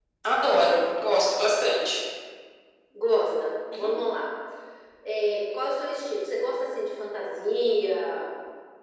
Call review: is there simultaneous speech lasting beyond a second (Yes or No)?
No